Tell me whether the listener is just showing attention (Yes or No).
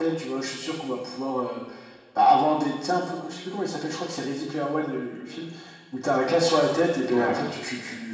Yes